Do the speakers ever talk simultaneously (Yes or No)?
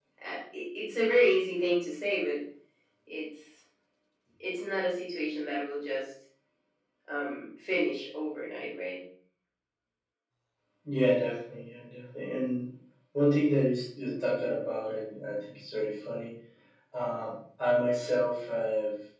No